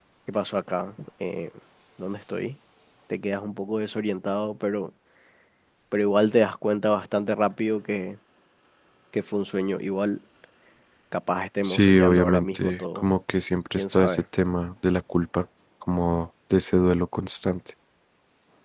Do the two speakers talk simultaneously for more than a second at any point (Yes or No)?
Yes